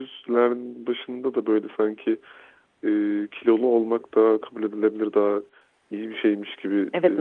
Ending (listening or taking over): taking over